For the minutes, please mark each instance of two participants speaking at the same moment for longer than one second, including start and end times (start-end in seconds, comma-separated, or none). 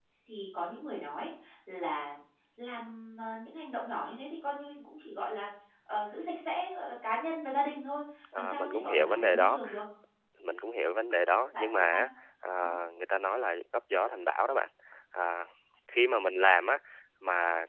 8.4-9.6